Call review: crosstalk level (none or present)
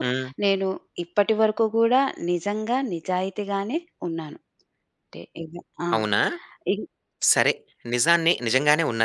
none